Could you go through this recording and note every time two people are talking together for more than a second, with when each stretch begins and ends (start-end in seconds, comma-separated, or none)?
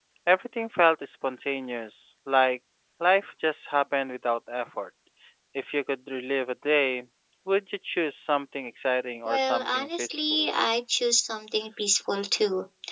9.2-10.5